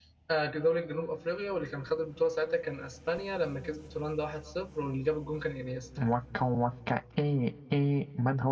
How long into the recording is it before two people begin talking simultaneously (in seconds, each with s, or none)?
none